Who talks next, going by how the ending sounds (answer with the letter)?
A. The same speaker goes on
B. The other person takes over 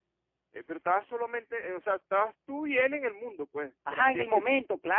B